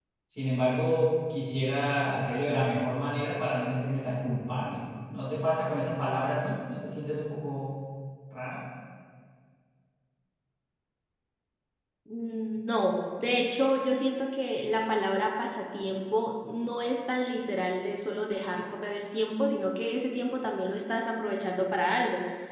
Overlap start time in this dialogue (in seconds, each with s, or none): none